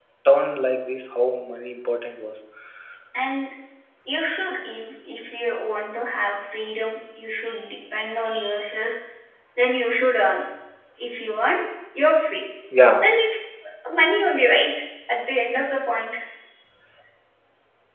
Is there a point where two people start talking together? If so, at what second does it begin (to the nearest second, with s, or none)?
none